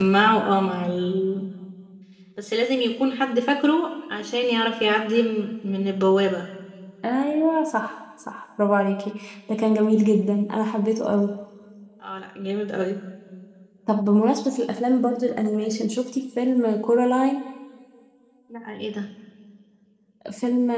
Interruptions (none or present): none